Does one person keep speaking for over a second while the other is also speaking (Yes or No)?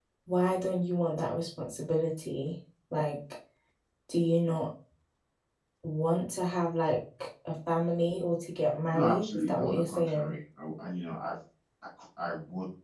Yes